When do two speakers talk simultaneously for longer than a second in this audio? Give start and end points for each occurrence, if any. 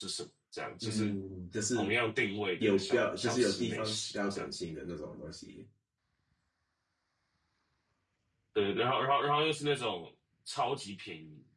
2.6-4.5

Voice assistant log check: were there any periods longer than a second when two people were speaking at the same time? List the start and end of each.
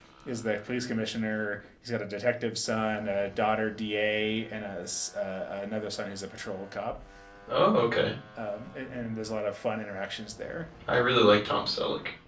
none

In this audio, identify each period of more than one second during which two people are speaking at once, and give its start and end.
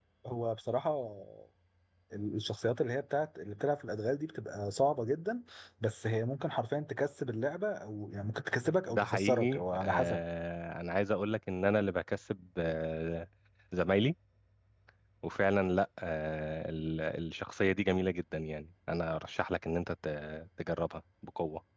8.9-10.2

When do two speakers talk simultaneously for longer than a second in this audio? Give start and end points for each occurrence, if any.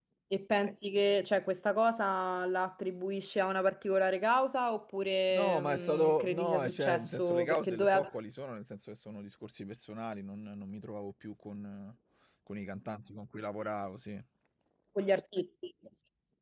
5.3-8.0

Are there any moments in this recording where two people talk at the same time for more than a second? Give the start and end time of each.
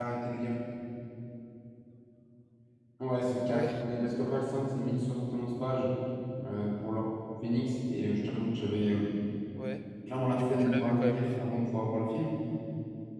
10.3-11.5

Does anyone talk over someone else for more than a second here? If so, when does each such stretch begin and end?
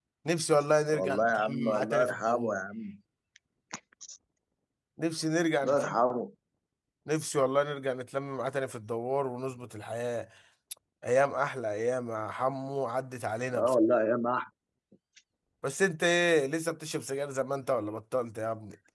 0.9-2.6

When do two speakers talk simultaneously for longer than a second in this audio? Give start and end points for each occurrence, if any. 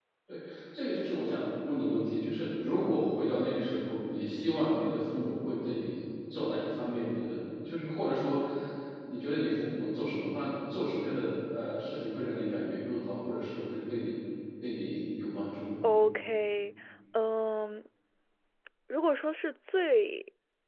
none

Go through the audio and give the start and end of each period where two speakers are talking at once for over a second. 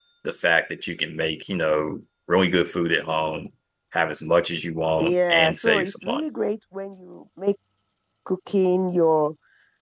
5.0-6.2

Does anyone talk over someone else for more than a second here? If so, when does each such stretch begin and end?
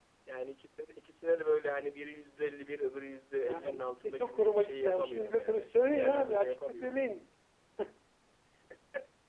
3.4-7.0

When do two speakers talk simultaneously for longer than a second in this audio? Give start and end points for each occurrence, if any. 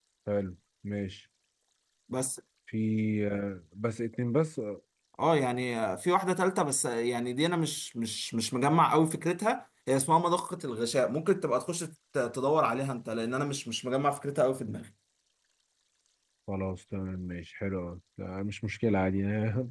none

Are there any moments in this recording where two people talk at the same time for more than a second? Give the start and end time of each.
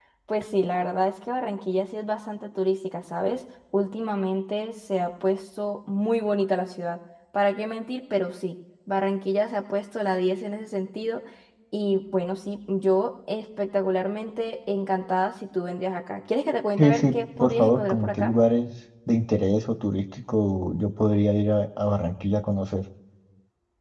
16.8-18.3

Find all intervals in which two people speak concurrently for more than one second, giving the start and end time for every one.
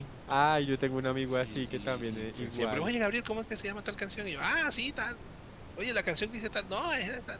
1.3-2.9

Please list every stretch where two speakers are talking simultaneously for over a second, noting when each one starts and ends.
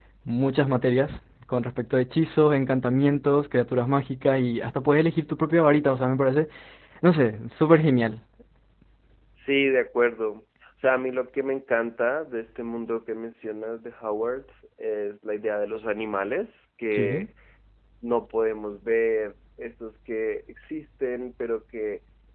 none

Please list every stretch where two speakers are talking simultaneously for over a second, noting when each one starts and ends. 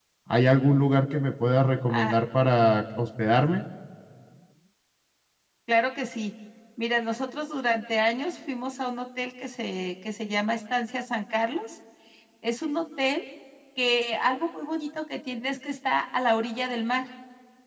none

